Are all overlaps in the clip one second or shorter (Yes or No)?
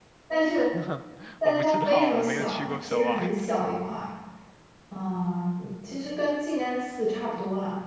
No